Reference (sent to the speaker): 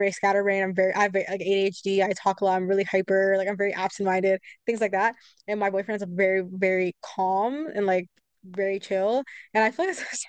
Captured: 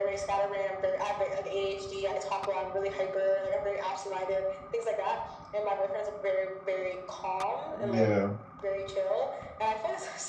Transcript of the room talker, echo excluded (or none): Yeah.